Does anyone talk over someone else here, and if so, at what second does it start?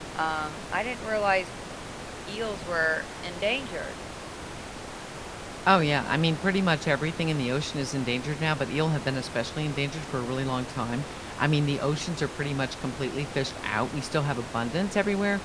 none

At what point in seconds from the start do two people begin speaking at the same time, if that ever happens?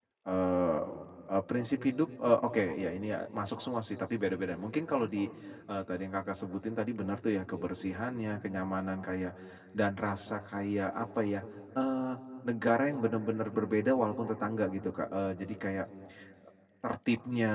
none

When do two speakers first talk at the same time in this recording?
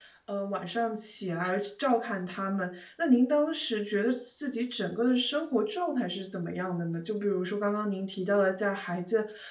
none

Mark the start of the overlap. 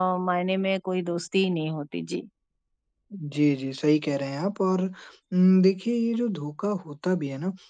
none

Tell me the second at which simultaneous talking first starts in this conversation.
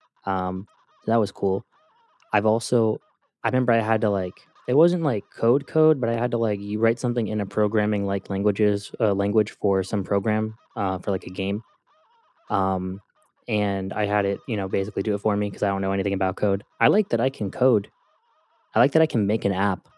none

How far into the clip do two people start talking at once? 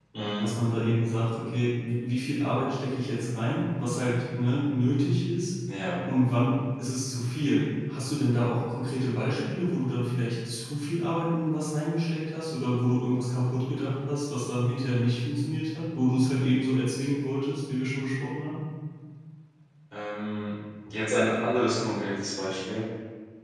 none

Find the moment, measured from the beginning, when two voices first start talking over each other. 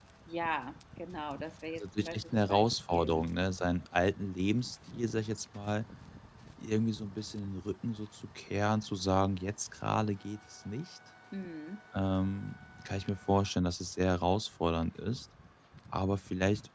1.8 s

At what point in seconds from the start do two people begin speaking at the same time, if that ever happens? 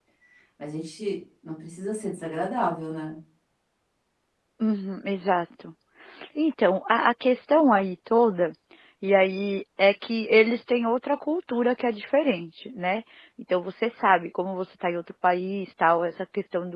none

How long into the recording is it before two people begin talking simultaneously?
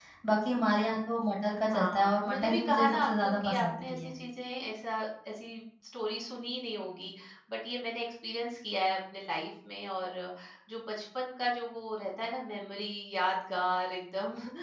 1.7 s

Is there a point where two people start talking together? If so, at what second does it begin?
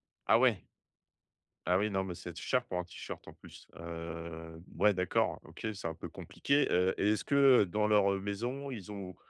none

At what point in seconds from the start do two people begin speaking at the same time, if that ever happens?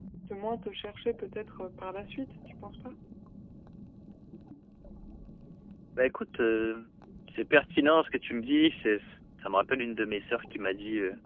none

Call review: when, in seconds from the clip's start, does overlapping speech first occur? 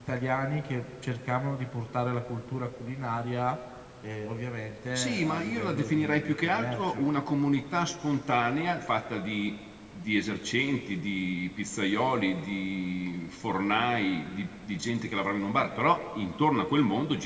5.0 s

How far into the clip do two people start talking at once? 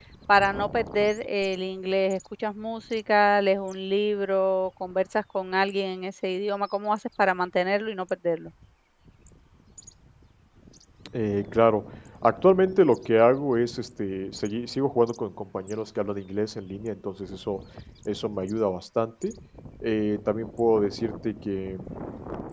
none

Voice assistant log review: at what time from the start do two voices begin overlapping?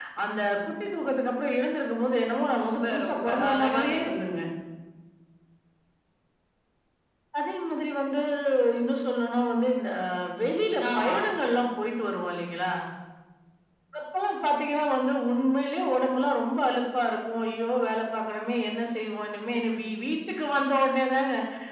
2.6 s

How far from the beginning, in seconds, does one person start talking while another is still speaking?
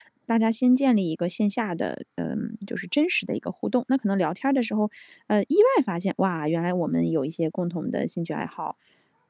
none

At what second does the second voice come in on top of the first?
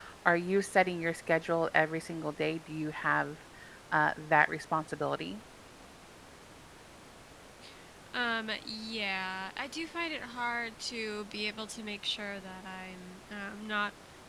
none

